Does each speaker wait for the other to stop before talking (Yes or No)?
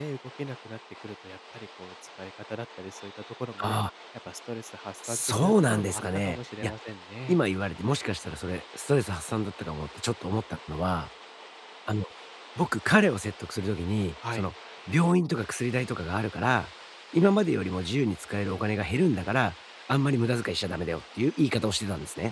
No